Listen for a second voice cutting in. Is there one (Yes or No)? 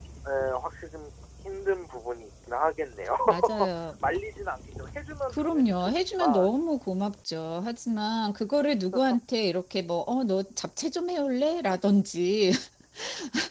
Yes